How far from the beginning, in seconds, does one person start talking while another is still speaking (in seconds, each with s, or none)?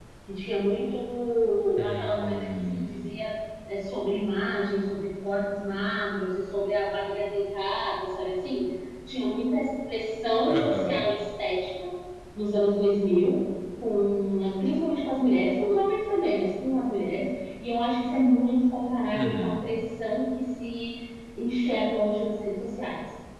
1.8 s